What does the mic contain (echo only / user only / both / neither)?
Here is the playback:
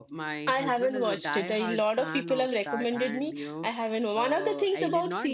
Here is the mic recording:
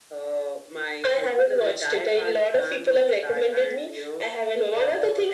echo only